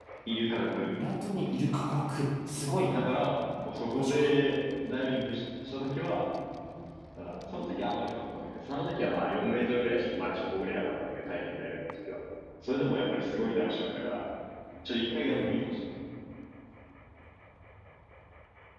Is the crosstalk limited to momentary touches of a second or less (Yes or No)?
Yes